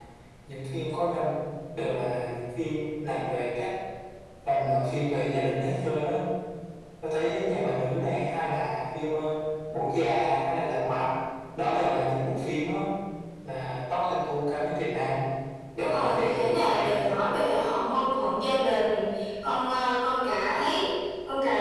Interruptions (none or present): present